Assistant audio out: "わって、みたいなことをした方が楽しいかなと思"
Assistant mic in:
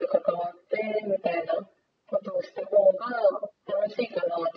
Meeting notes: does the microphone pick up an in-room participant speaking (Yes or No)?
No